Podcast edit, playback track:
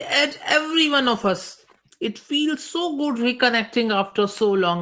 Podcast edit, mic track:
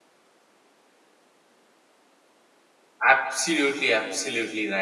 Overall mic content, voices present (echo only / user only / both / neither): user only